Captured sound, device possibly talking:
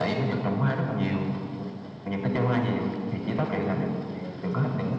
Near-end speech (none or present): present